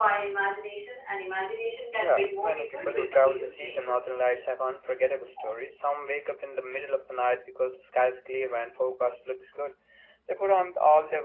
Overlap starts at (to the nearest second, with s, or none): 2 s